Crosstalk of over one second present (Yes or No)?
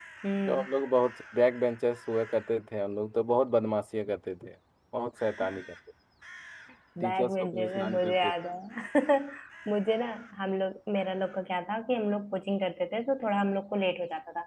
Yes